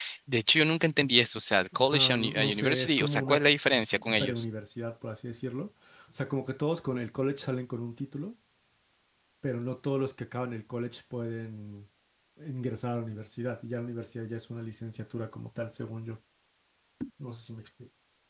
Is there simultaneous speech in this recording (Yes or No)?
Yes